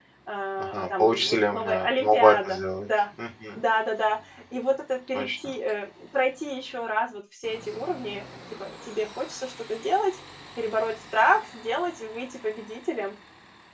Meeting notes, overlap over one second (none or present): present